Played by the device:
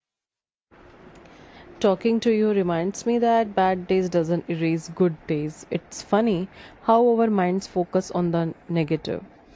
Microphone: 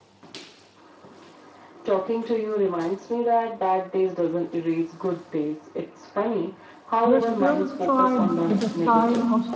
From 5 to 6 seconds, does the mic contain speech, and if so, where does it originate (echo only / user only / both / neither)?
echo only